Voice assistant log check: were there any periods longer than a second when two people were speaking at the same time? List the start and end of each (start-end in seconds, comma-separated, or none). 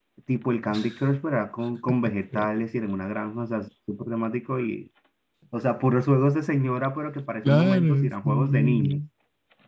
7.4-9.0